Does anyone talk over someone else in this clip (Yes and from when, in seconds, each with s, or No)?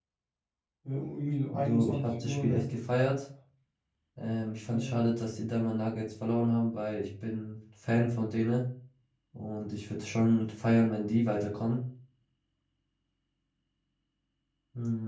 Yes, from 1.5 s